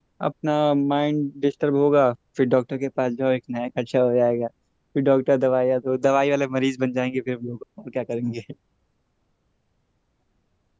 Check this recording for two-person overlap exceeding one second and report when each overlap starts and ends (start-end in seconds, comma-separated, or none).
none